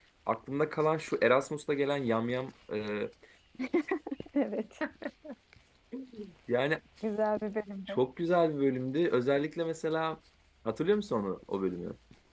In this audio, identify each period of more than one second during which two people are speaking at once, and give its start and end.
none

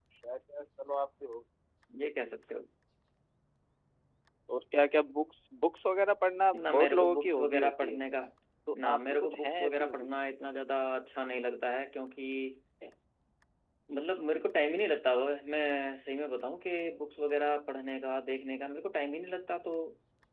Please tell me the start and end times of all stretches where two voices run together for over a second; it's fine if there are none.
6.5-8.0, 8.8-10.1

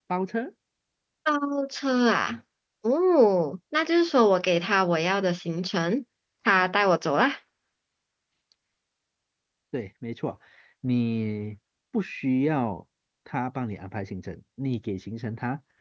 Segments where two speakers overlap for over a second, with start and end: none

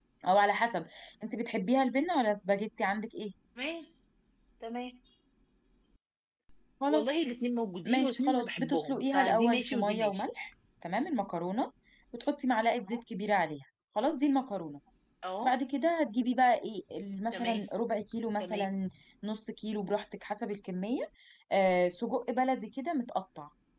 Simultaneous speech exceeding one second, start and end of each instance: 7.8-10.2

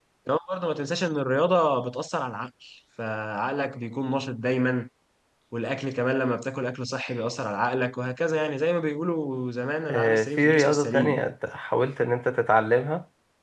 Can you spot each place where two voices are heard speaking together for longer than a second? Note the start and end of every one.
9.9-11.2

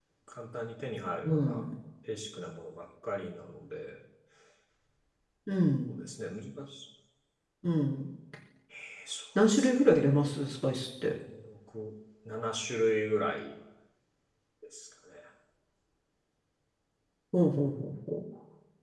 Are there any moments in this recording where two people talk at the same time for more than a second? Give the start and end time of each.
none

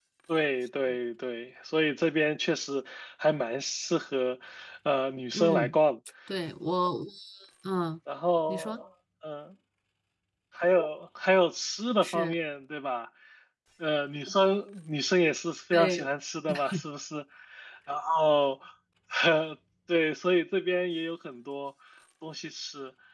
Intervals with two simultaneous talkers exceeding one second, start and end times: none

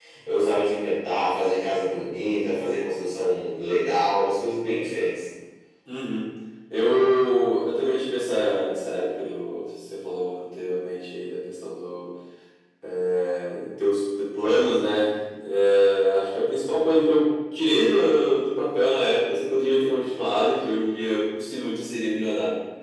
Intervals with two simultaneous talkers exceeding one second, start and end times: none

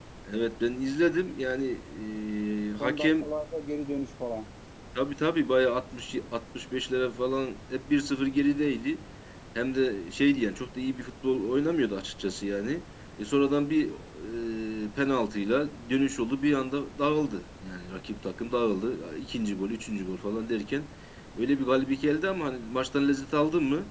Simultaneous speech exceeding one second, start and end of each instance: none

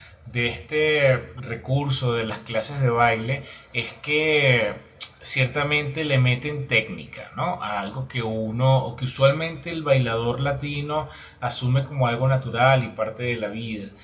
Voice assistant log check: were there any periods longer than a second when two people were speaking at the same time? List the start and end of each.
none

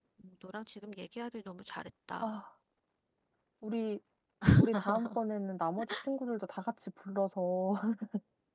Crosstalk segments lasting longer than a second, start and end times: none

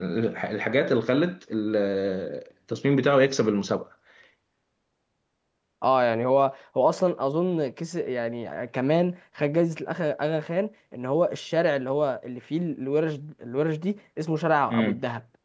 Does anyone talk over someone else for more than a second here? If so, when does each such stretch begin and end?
none

